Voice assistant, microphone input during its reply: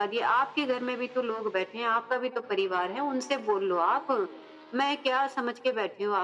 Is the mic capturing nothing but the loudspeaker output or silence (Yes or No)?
Yes